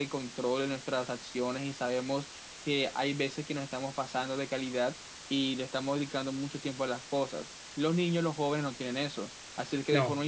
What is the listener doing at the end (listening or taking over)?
listening